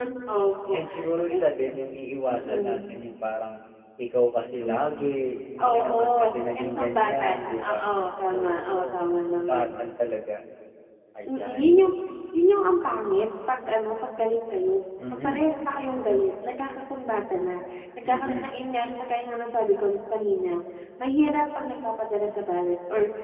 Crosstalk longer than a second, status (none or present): present